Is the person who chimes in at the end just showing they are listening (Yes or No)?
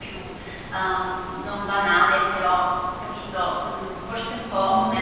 No